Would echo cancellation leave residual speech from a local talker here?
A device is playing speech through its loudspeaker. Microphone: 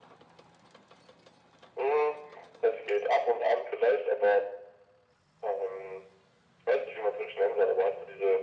No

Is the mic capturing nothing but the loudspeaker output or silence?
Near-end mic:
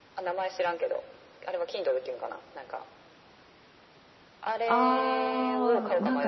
No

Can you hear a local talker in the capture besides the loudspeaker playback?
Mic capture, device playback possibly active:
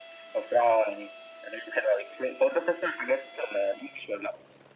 No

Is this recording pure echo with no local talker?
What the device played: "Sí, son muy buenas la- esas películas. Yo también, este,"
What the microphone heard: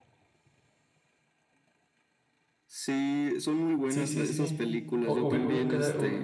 No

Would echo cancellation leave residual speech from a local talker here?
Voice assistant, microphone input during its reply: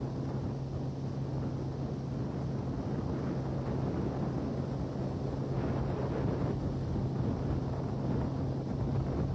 No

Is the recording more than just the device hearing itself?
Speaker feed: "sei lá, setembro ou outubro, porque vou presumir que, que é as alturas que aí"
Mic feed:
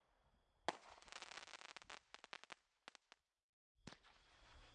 No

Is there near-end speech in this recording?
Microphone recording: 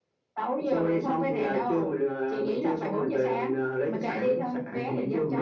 No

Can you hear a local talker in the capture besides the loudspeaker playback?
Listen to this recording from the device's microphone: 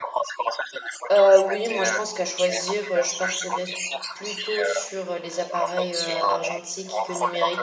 Yes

